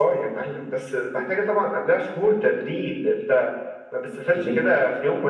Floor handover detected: No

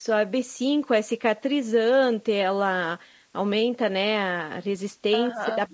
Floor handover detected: No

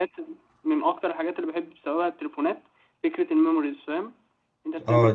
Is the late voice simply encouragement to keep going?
No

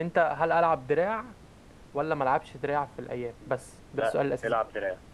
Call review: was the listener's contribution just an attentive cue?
No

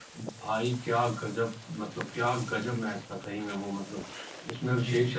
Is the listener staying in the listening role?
Yes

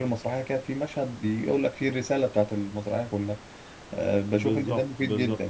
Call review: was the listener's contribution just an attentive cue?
No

